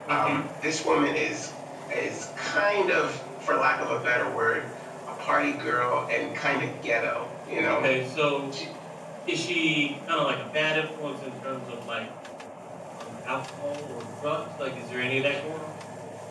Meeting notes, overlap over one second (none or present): none